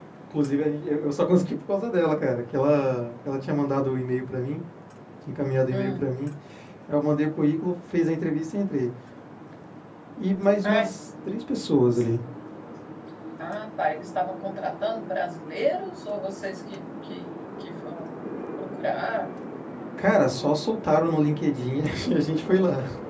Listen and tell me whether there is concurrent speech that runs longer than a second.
No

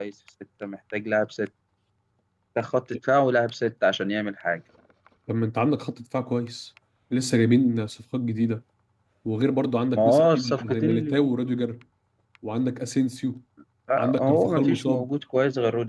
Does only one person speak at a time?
No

